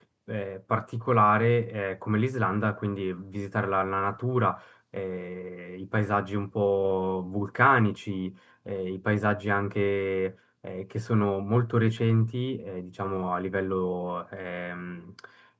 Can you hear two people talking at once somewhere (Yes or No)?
No